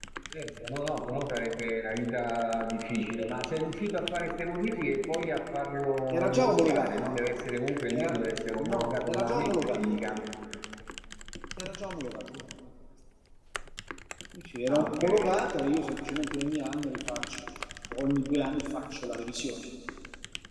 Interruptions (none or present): present